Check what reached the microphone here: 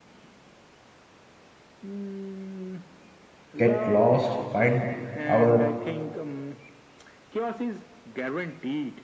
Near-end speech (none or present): present